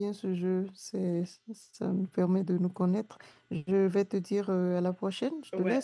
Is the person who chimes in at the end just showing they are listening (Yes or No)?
No